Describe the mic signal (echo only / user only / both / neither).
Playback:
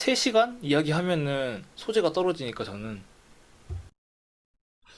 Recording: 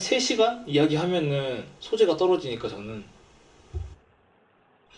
echo only